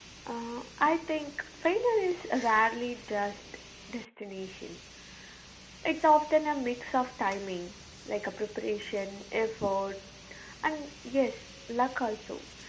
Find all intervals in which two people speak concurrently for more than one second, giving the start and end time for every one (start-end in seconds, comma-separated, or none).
none